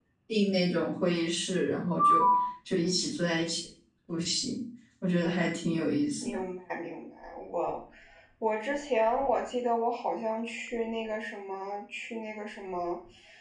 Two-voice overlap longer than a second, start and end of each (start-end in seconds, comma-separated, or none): none